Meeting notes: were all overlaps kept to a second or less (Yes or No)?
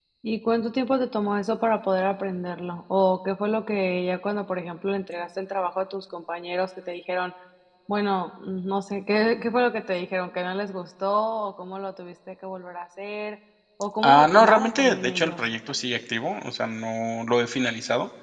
No